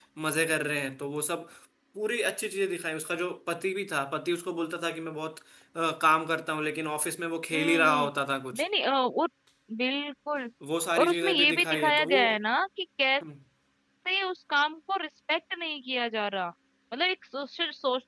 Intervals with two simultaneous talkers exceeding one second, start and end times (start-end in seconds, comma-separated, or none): 11.0-12.2